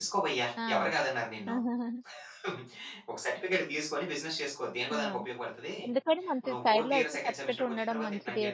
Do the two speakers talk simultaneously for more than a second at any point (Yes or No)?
Yes